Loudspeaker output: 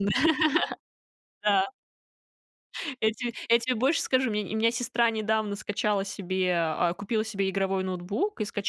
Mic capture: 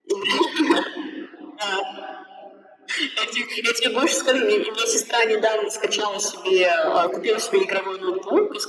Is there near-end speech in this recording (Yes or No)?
No